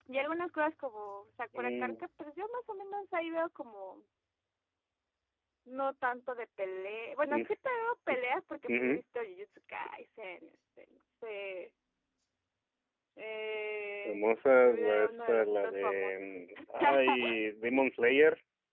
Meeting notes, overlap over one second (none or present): present